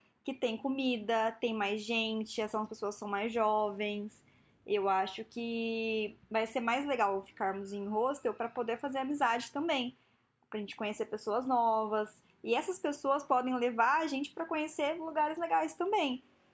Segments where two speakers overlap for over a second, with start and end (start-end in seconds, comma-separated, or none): none